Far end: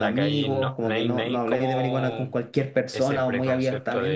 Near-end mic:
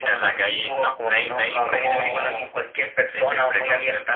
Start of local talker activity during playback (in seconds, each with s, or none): none